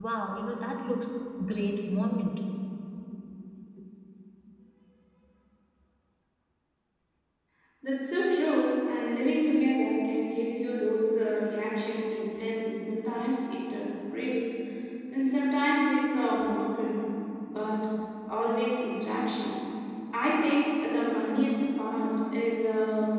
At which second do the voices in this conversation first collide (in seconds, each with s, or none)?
none